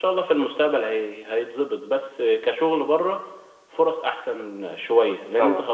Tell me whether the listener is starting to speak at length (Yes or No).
No